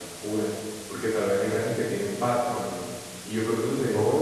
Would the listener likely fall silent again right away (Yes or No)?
No